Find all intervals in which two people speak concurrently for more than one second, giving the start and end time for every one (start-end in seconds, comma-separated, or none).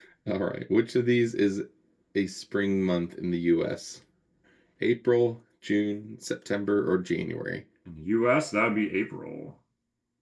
none